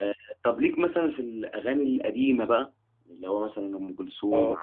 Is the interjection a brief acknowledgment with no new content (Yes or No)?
No